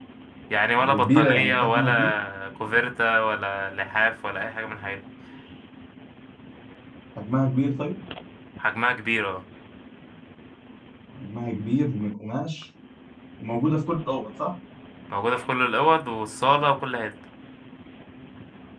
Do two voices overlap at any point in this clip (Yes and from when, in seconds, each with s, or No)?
Yes, from 0.8 s